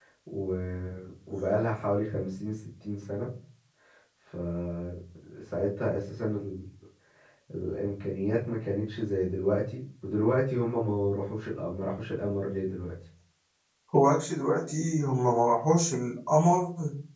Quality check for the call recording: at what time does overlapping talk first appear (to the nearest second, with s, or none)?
none